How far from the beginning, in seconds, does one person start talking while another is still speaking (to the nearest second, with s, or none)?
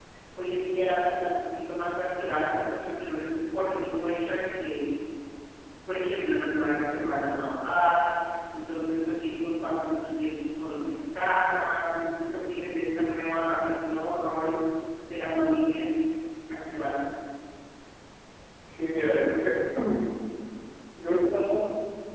none